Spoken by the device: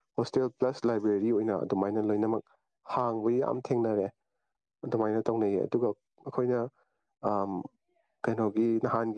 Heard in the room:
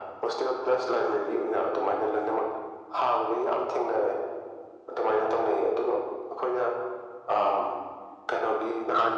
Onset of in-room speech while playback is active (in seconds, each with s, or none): none